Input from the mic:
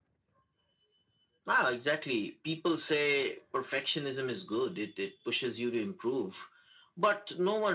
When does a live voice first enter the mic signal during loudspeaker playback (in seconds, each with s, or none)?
none